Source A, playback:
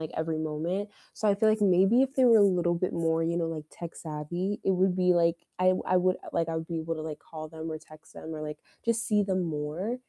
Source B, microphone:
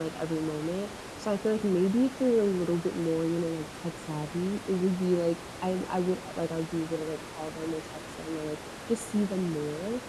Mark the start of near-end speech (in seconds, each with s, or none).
none